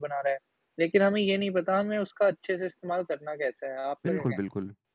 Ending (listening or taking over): taking over